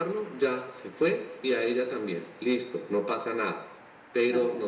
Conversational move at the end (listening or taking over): listening